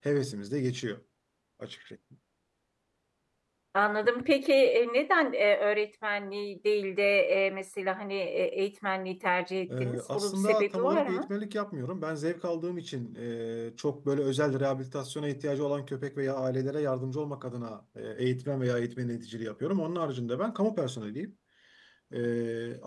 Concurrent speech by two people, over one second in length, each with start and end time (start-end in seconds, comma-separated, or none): 9.8-11.3